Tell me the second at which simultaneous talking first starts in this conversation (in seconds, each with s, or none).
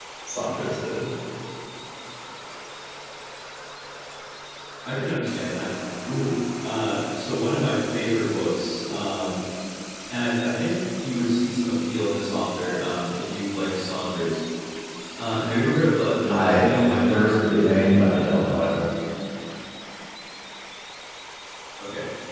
16.3 s